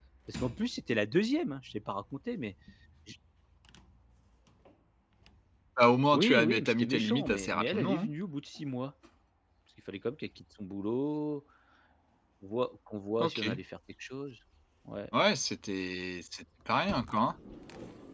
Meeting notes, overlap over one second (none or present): present